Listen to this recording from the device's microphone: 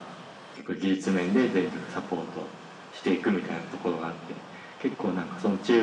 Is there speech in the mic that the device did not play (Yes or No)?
No